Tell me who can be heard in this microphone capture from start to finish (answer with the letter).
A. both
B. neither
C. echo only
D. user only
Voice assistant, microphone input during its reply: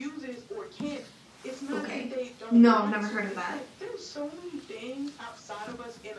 A